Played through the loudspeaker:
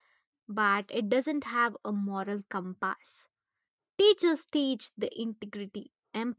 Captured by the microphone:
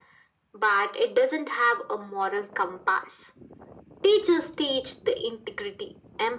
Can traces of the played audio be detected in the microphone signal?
Yes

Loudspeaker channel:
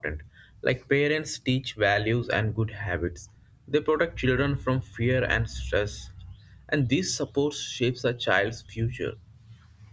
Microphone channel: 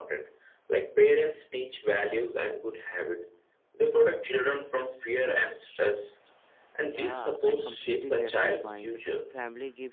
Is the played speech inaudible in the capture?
No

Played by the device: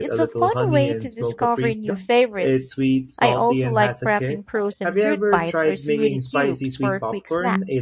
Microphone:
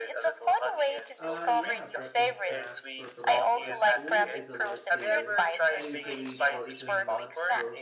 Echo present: Yes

